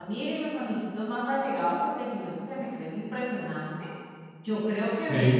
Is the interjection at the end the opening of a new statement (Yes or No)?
No